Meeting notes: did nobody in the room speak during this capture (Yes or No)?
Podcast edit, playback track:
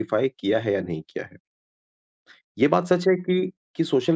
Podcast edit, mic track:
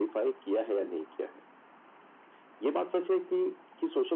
Yes